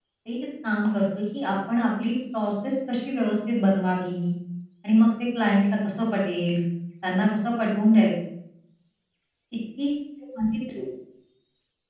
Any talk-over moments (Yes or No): No